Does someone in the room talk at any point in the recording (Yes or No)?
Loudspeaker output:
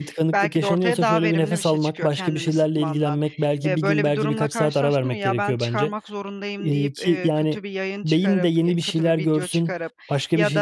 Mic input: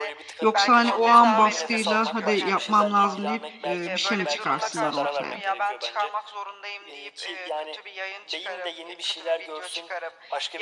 Yes